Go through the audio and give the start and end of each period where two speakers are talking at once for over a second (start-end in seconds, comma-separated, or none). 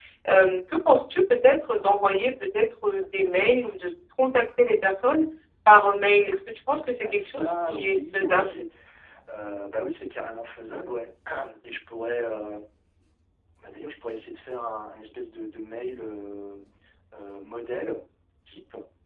7.0-8.6